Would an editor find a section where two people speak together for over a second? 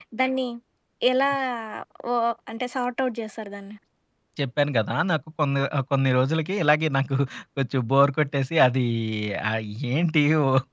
No

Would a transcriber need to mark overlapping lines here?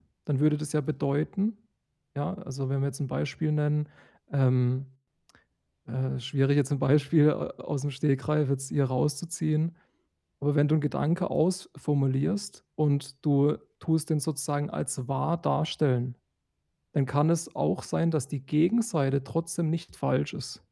No

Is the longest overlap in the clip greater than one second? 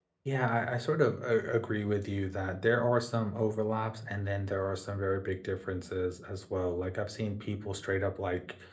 No

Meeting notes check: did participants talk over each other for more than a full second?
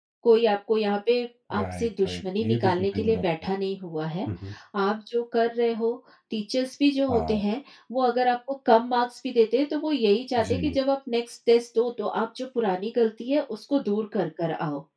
Yes, from 1.6 s

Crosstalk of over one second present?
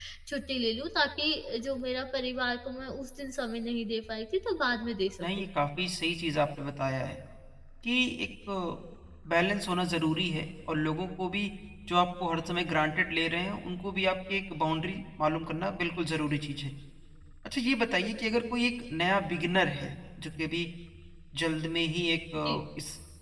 No

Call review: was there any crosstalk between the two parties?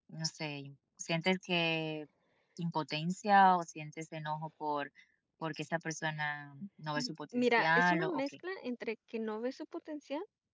Yes, from 7.0 s

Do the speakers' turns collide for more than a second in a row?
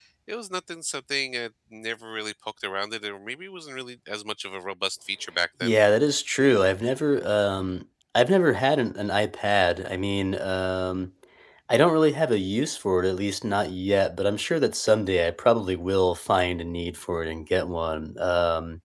No

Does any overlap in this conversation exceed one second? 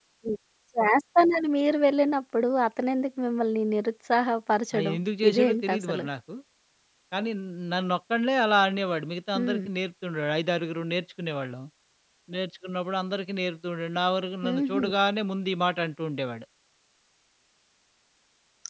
Yes, from 4.8 s

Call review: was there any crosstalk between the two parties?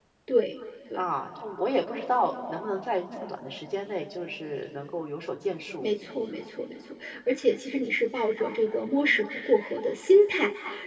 No

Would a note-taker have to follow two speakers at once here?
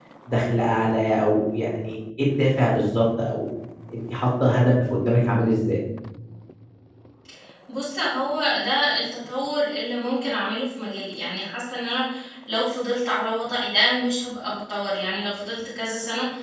No

